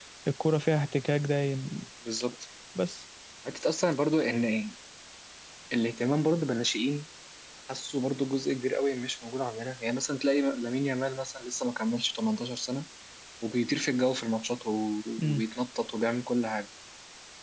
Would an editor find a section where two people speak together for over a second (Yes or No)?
No